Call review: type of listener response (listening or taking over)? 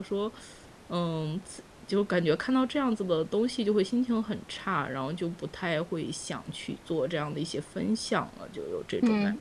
taking over